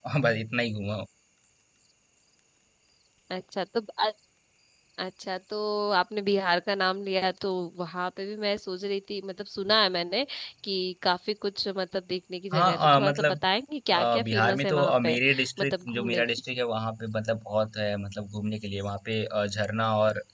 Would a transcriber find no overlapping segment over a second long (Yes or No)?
No